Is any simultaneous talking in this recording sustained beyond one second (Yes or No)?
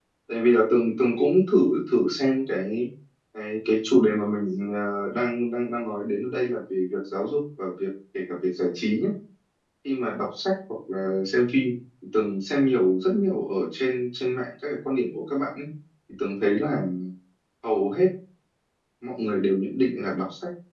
No